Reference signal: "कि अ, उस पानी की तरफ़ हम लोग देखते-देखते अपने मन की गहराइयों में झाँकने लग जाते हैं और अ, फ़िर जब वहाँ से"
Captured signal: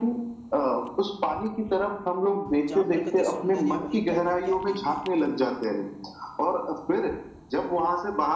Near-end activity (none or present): present